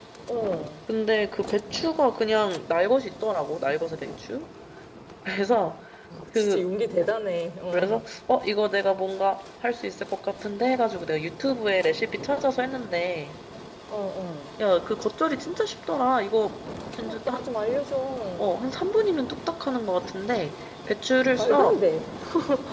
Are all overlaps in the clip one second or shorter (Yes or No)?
Yes